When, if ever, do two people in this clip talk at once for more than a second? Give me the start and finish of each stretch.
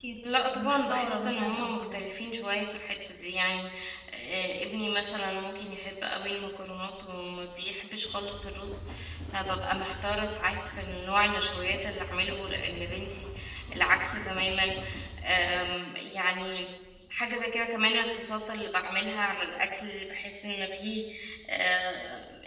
0.5-2.0

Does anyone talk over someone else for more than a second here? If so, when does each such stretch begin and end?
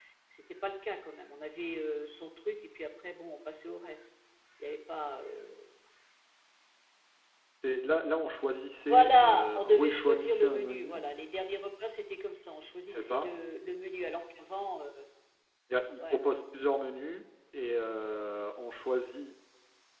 8.9-11.0

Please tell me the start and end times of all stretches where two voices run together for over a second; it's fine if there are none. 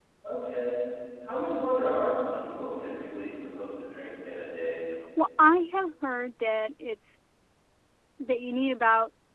none

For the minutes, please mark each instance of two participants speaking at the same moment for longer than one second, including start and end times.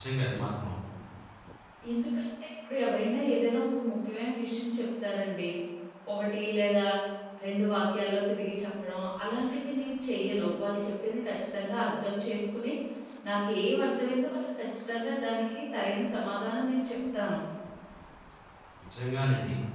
none

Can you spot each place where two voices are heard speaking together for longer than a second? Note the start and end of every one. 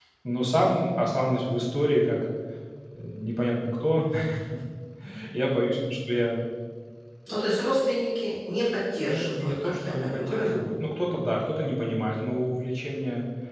9.1-10.6

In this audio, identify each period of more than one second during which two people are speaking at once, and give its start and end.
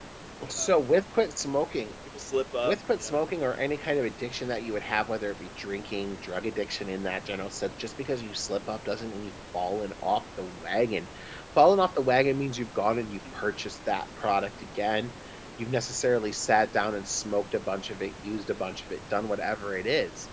none

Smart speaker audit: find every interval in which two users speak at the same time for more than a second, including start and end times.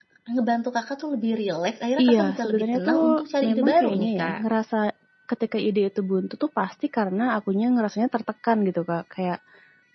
2.0-4.4

